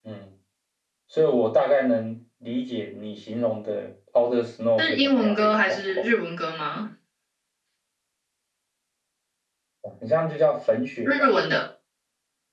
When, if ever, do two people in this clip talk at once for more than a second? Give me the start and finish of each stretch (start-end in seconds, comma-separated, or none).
4.8-6.0